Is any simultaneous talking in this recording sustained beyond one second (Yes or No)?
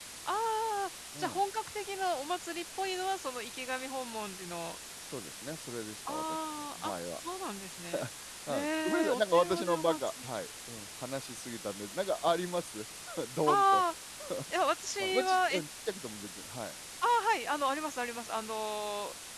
Yes